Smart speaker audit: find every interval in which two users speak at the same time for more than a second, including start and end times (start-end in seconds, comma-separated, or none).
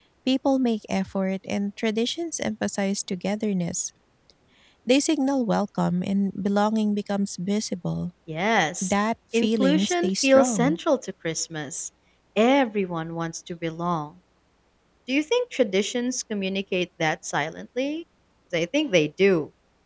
9.3-10.8